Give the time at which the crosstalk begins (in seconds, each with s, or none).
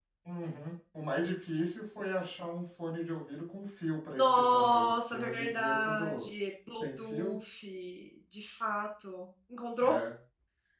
4.2 s